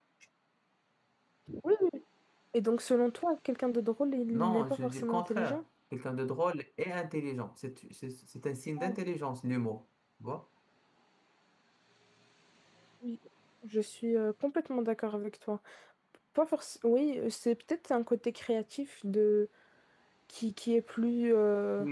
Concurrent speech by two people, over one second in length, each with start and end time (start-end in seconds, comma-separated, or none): 4.3-5.6